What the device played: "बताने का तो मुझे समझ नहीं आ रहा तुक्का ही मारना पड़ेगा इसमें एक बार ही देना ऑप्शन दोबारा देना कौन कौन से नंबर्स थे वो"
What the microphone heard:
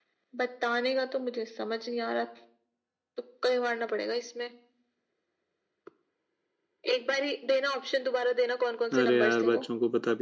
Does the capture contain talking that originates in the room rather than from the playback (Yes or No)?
Yes